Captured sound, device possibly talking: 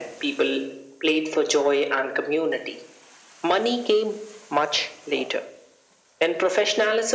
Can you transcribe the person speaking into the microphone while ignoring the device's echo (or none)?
none